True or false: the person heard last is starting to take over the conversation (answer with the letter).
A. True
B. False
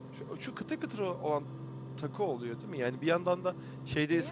B